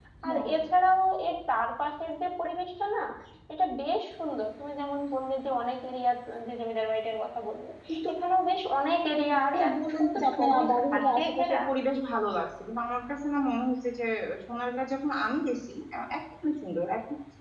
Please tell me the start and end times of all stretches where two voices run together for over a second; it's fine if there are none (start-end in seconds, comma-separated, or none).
9.3-11.6